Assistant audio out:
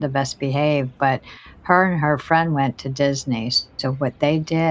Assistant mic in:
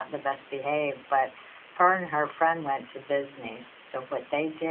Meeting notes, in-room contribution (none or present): none